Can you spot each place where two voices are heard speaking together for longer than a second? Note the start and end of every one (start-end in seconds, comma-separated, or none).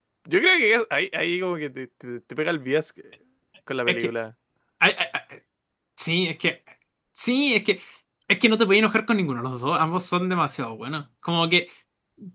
none